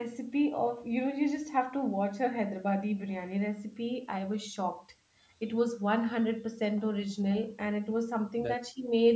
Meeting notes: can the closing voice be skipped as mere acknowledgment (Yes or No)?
Yes